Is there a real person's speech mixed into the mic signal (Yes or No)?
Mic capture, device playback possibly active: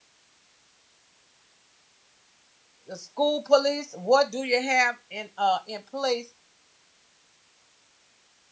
Yes